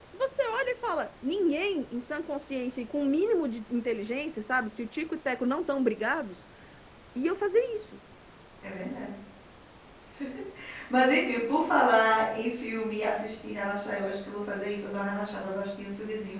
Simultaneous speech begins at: none

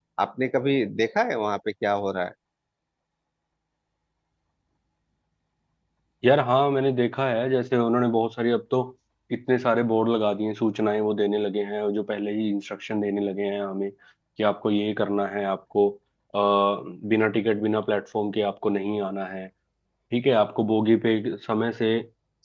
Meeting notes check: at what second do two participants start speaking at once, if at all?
none

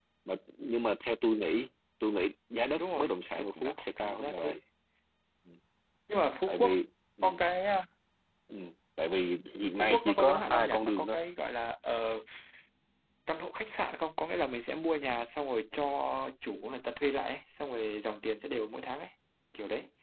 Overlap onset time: 3 s

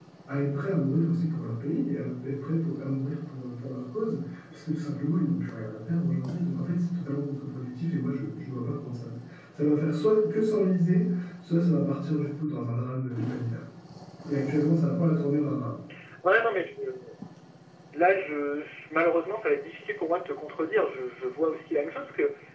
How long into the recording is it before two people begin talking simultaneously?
none

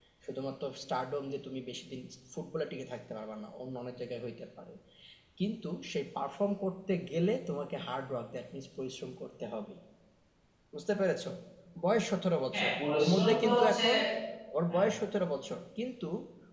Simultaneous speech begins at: 13 s

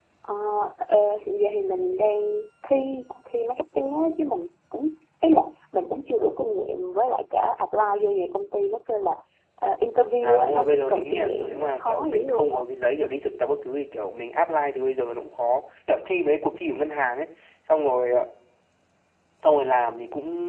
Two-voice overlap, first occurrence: 10 s

